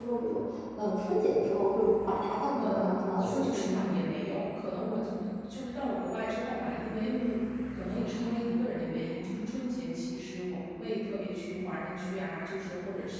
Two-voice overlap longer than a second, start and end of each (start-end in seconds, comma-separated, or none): 2.6-3.9